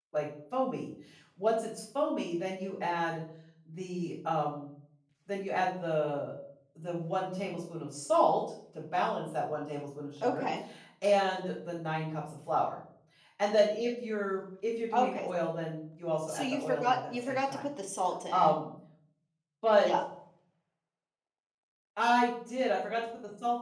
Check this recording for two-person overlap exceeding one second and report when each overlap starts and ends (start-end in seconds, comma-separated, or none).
16.3-17.7